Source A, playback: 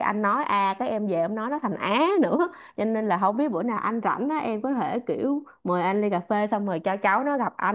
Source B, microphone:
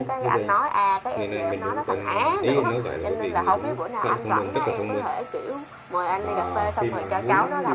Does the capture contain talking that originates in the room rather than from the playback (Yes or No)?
Yes